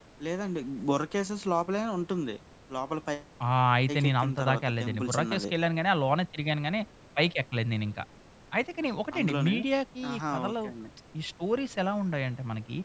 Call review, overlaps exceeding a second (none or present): present